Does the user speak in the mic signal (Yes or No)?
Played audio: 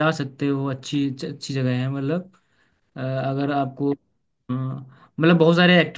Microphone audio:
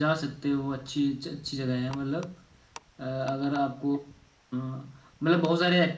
No